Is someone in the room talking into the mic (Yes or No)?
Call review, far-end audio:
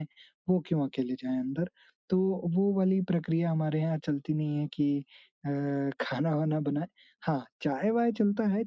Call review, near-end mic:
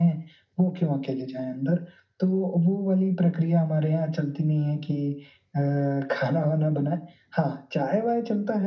No